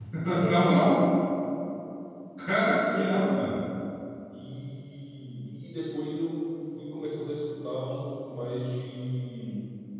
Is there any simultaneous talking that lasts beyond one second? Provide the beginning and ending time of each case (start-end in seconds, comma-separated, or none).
none